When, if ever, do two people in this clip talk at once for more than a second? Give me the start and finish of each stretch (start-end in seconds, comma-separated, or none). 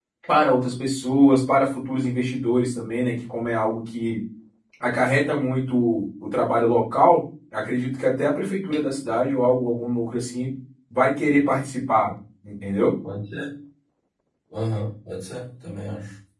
none